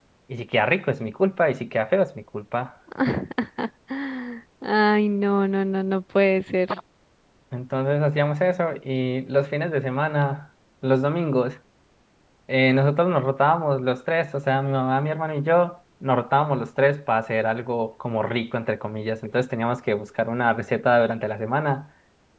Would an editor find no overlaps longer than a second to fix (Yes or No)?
Yes